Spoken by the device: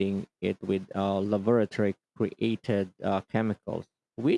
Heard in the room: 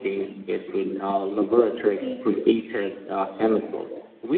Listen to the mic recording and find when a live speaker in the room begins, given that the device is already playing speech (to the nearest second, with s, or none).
2 s